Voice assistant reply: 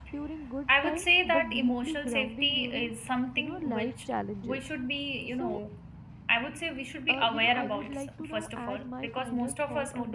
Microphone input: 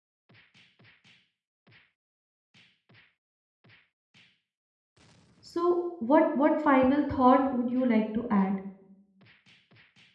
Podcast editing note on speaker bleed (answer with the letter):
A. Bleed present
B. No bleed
B